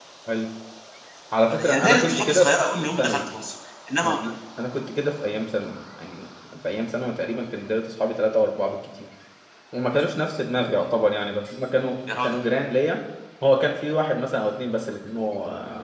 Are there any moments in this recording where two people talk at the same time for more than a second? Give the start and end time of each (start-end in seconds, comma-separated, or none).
1.5-3.2